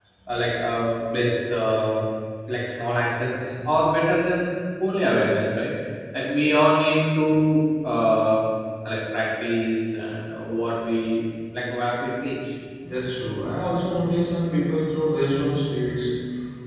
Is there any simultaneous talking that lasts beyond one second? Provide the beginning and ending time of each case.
none

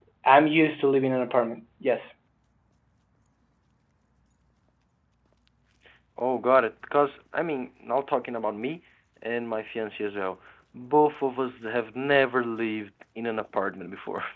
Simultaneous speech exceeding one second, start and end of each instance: none

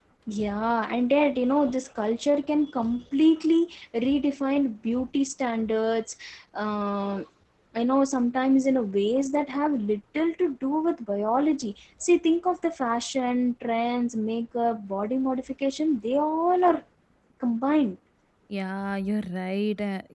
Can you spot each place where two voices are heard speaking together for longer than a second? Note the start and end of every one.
none

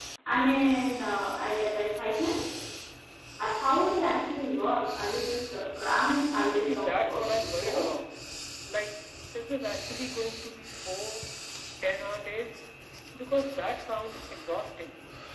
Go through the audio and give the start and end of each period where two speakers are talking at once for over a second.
6.6-7.8

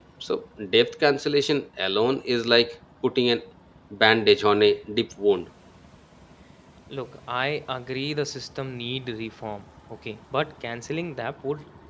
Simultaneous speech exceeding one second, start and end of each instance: none

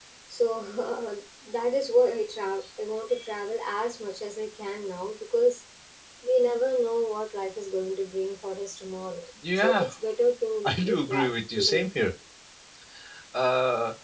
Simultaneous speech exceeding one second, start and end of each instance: 10.6-11.9

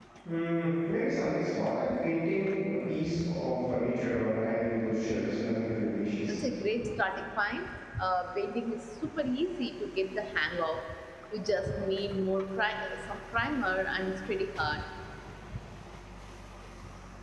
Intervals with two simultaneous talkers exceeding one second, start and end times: none

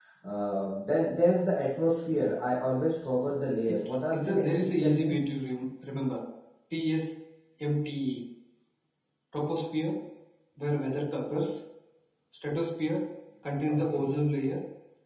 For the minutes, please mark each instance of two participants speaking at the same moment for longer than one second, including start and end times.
3.7-5.2

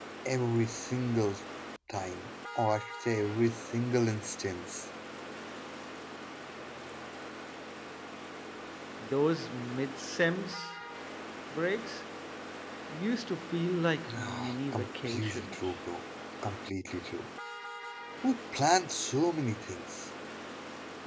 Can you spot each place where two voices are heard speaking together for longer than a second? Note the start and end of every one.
14.1-15.7

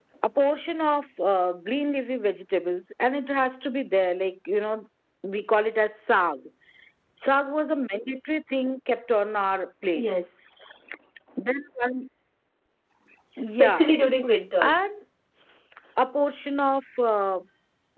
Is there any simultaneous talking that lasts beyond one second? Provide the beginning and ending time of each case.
none

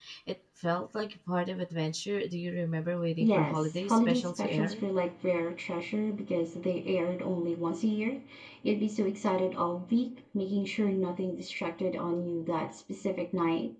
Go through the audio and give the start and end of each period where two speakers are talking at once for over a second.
3.2-4.8

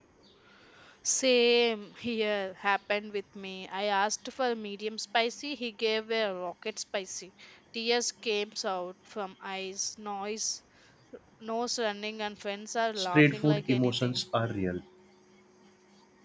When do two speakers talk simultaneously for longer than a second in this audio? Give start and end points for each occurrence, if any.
12.9-14.2

